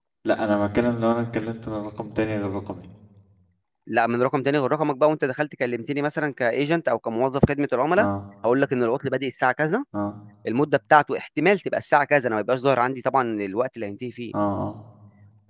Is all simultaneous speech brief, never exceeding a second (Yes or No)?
Yes